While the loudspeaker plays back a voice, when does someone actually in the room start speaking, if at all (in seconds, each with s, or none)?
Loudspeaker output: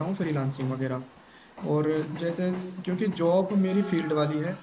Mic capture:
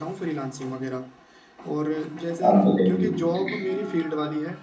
2.5 s